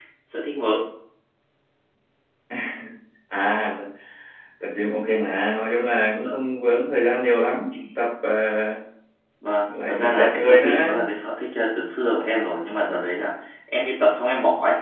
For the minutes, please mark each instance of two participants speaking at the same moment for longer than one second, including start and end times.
9.6-11.0

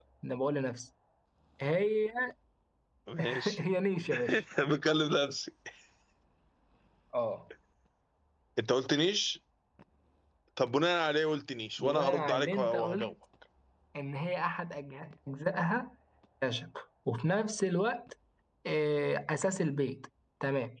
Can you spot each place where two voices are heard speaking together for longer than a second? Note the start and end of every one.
11.8-13.1

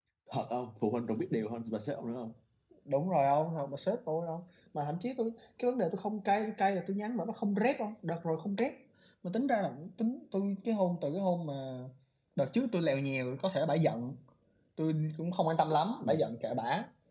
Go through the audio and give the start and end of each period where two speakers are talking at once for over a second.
none

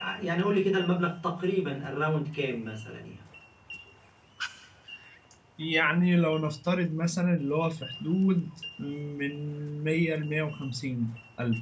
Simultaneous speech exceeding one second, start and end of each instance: none

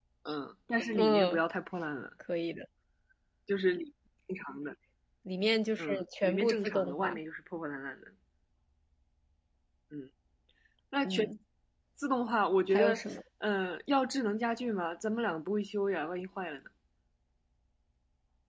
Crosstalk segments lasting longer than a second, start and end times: 5.8-7.2

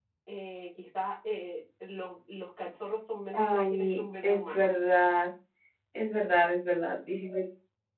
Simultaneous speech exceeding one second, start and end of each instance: 3.3-4.7

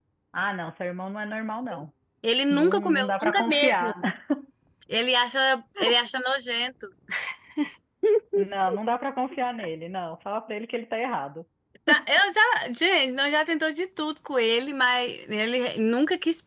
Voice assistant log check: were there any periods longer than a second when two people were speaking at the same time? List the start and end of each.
2.5-3.9

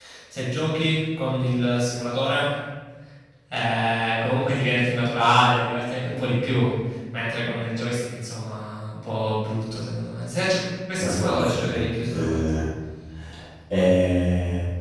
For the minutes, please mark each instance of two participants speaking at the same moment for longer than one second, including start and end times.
11.0-12.5

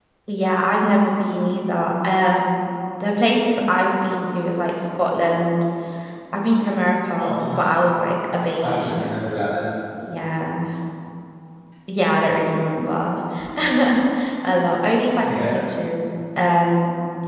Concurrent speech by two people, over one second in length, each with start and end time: none

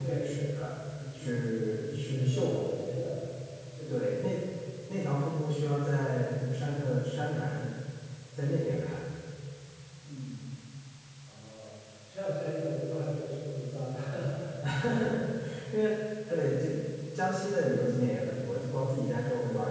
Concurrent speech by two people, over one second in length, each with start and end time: 1.1-3.1

